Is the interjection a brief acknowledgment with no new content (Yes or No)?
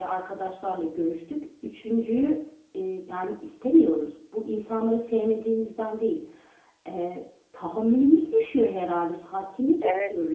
No